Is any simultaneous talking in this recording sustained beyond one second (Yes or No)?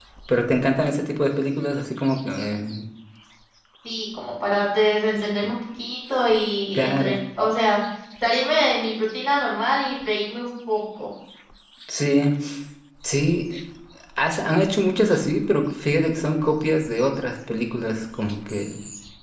No